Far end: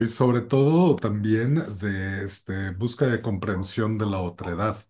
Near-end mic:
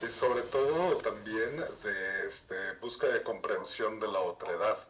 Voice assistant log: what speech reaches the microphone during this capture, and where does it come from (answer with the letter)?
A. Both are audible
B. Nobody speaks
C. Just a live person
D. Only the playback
D